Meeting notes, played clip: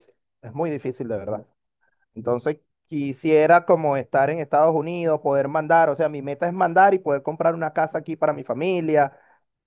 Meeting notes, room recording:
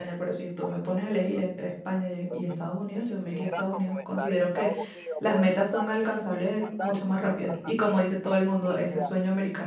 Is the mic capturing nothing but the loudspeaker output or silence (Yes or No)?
No